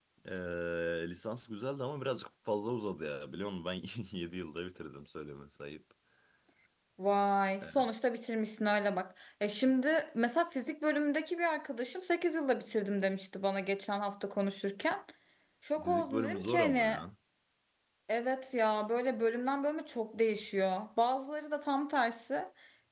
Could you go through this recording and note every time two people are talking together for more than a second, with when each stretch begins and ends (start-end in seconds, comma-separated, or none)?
15.8-17.0